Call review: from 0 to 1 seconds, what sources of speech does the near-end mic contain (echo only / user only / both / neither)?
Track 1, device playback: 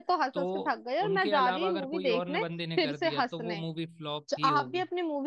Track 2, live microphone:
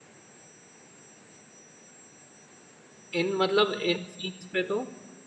neither